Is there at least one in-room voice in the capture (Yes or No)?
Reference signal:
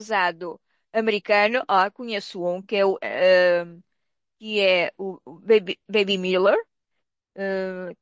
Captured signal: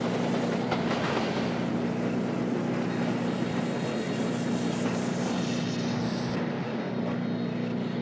No